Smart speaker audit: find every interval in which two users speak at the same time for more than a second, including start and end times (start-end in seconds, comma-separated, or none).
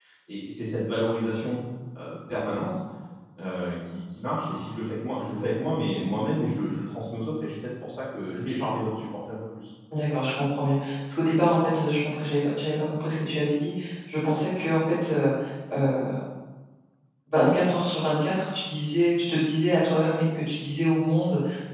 none